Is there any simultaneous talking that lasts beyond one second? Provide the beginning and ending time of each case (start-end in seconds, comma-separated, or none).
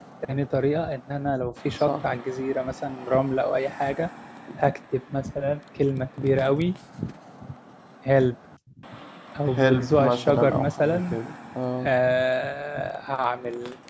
9.5-11.2